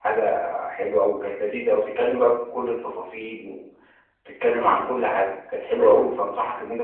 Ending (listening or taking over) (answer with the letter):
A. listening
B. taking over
A